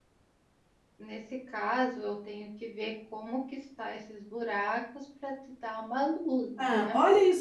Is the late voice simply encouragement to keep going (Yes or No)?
No